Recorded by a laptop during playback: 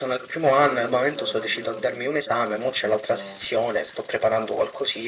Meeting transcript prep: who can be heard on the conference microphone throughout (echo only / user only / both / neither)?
both